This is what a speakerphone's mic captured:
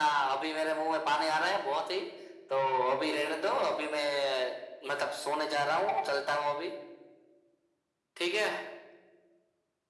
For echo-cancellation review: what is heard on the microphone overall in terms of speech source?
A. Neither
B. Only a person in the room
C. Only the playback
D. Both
C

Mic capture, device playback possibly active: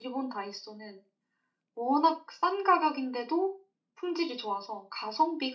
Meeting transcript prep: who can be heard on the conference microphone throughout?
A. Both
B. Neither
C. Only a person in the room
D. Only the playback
C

